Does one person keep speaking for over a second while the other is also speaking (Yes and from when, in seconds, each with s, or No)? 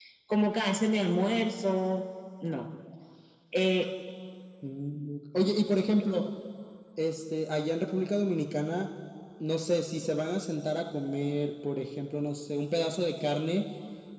No